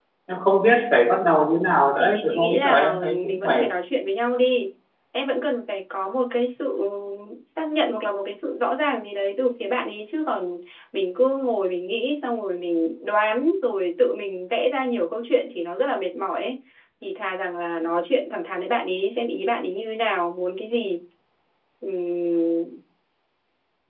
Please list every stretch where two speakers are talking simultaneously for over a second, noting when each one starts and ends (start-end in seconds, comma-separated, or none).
2.0-3.7